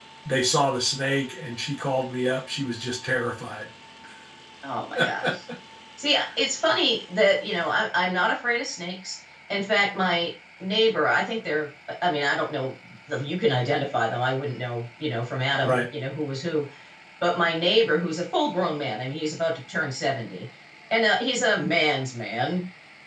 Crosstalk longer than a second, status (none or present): none